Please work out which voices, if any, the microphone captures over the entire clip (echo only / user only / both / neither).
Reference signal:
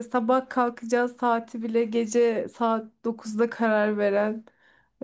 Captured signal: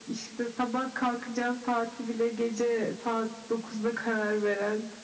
echo only